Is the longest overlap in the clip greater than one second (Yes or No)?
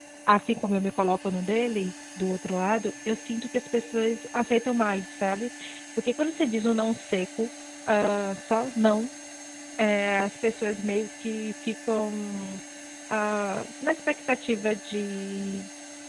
No